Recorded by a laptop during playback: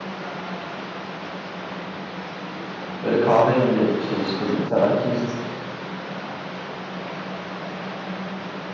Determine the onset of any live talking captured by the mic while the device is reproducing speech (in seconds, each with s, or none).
3.0 s